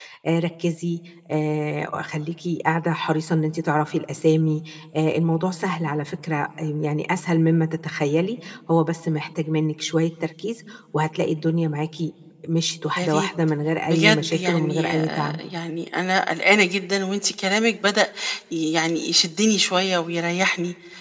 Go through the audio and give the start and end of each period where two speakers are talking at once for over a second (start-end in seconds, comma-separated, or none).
13.9-15.4